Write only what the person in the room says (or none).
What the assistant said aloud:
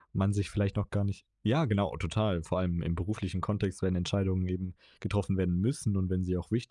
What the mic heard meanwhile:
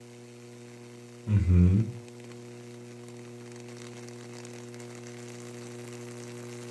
Mhm.